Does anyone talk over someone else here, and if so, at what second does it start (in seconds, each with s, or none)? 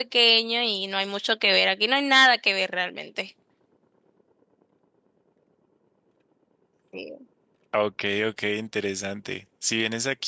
none